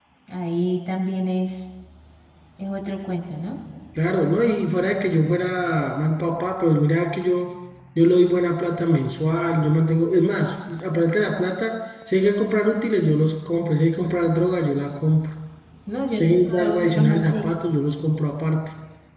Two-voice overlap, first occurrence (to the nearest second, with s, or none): 16 s